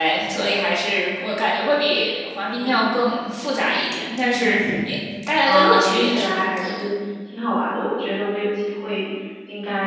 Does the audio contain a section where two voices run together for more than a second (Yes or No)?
Yes